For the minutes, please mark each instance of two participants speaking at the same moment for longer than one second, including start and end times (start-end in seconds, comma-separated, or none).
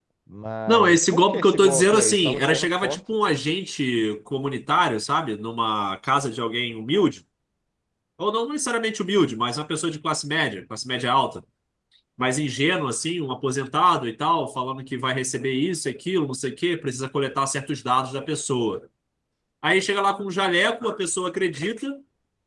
0.7-3.0